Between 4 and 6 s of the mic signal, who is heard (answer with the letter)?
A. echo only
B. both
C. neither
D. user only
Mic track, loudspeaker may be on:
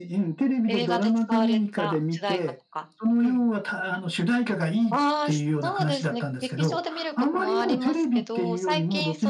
B